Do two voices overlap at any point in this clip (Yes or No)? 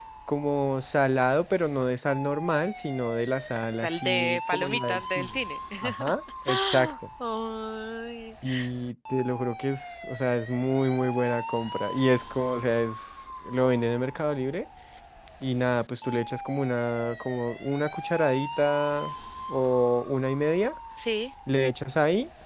Yes